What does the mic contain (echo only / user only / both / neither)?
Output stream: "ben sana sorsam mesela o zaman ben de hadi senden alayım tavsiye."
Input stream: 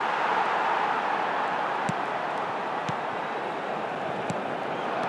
neither